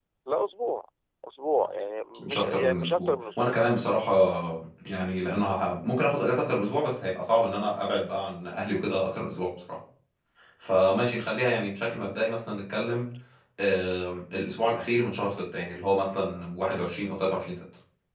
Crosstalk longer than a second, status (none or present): present